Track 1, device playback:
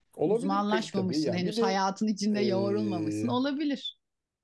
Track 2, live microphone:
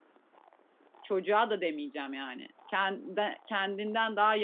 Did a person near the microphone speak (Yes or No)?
Yes